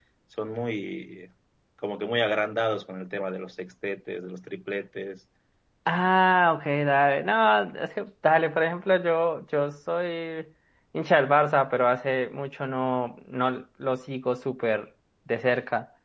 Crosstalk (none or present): none